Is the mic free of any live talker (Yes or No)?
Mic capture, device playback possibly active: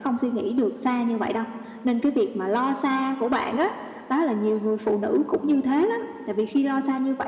Yes